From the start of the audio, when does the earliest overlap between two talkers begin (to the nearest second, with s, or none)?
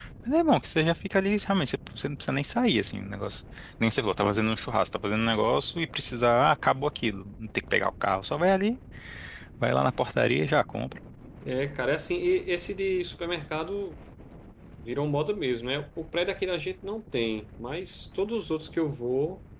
none